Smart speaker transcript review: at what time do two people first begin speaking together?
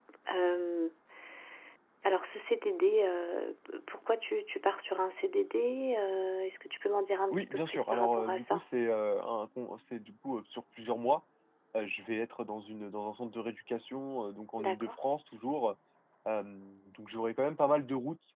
7 s

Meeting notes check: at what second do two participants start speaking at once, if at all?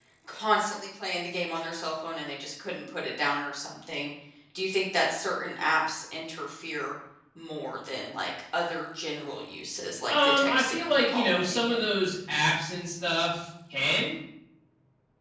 10 s

